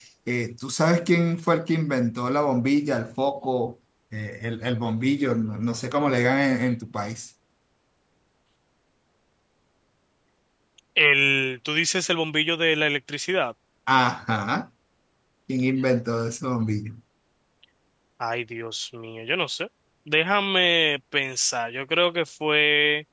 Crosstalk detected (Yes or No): No